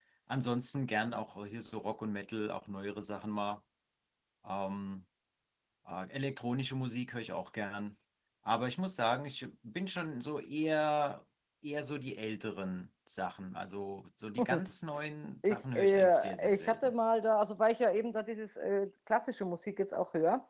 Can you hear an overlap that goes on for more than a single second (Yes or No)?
Yes